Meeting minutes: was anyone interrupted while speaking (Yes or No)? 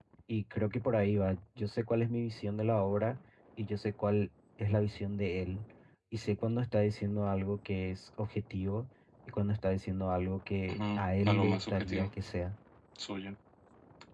Yes